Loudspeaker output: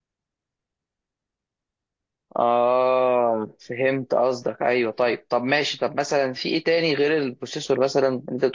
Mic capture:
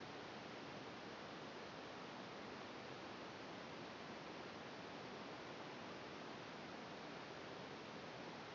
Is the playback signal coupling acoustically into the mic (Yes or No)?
No